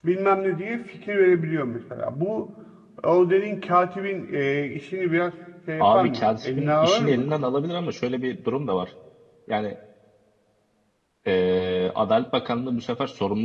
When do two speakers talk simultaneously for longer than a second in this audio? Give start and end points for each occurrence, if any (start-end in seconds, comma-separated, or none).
5.8-7.2